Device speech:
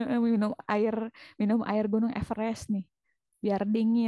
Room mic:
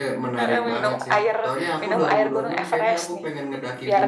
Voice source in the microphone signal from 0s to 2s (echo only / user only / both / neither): both